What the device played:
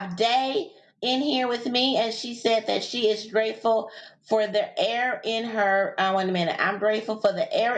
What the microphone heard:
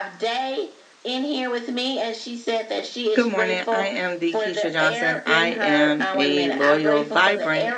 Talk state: both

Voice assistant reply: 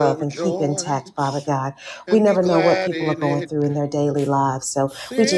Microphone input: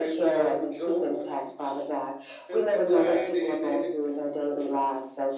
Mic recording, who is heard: echo only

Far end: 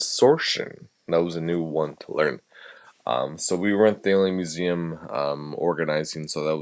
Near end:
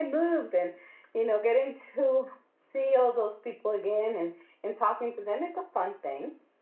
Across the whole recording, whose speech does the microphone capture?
user only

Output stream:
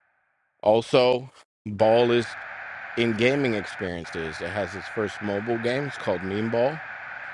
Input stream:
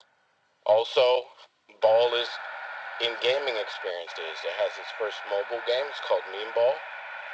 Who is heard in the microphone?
echo only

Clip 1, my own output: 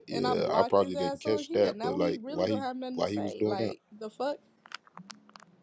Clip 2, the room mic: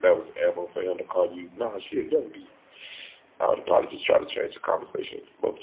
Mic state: user only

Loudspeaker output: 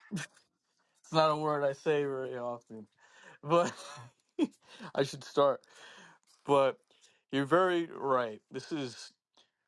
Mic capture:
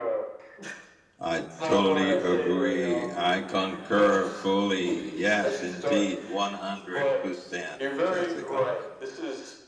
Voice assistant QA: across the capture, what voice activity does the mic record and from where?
both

